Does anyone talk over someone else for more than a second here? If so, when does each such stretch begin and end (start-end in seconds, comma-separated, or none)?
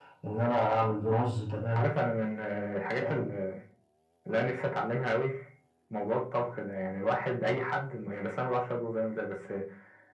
none